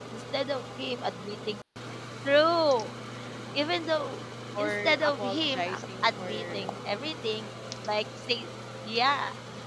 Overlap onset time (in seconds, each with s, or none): 4.5 s